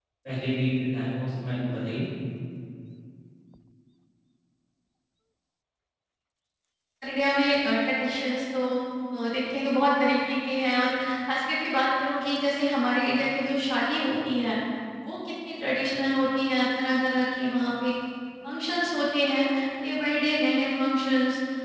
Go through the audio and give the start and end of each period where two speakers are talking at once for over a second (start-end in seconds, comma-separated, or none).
none